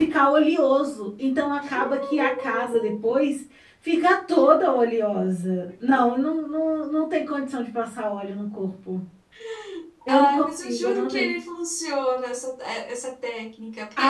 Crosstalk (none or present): present